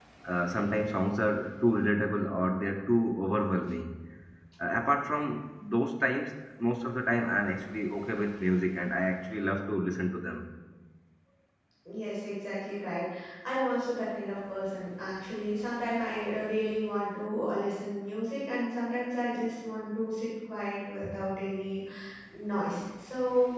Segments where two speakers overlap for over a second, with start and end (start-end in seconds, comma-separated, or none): none